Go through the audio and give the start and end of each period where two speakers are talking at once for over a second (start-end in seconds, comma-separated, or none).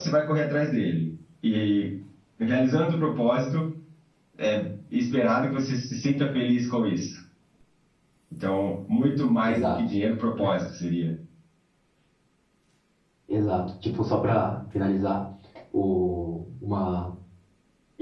none